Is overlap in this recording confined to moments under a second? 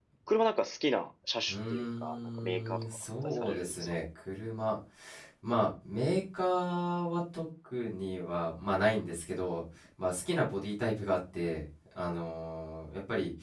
No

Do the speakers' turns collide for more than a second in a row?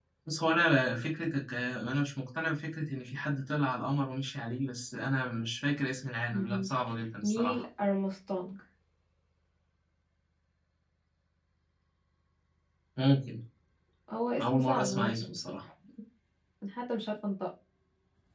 Yes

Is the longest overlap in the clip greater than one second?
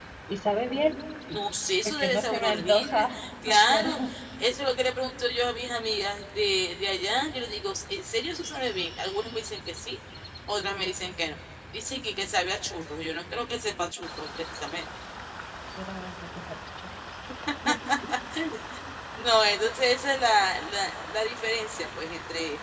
Yes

